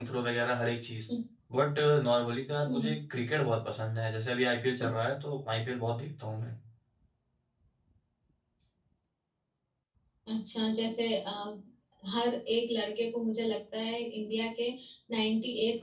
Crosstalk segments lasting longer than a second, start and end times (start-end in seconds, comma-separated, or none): none